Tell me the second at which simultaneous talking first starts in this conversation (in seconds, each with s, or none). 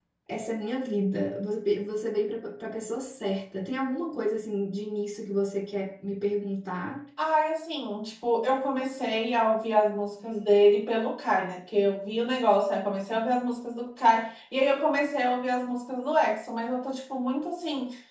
none